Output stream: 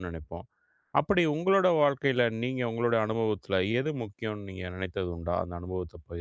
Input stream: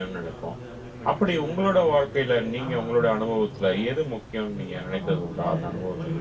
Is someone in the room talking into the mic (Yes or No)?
Yes